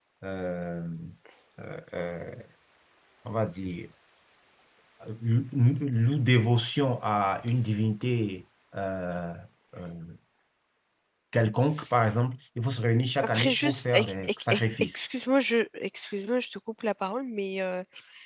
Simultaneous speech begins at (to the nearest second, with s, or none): 13 s